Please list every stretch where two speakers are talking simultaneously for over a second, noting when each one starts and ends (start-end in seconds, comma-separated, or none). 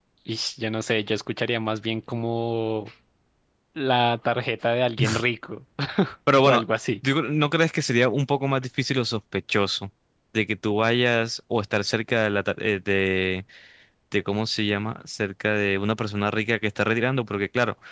none